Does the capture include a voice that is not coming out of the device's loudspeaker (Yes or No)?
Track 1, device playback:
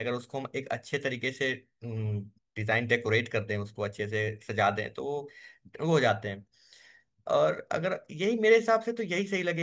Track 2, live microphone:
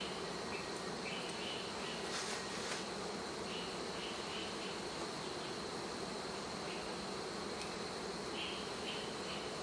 No